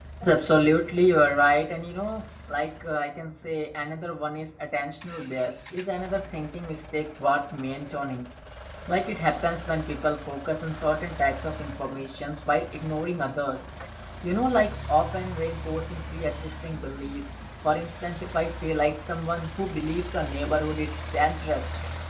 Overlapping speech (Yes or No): No